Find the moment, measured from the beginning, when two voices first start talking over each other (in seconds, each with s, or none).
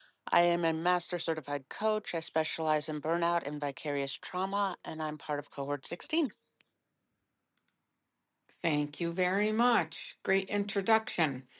none